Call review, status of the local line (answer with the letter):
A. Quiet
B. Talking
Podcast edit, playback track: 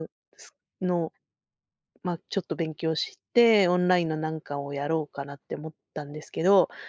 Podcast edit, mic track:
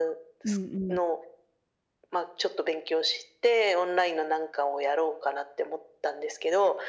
B